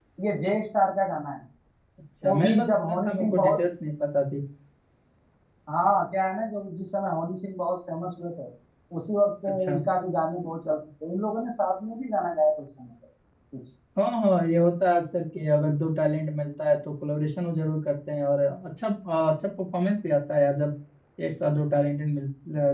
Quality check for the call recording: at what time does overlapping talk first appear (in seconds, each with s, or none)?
2.2 s